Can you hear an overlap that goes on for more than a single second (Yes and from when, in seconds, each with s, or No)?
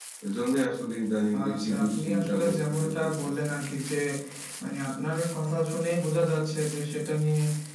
Yes, from 1.3 s